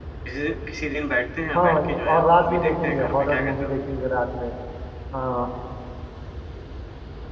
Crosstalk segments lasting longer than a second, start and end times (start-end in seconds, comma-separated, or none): 1.6-3.7